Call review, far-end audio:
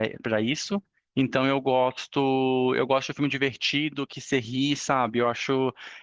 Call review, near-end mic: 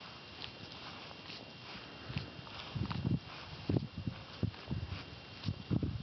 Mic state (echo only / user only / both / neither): neither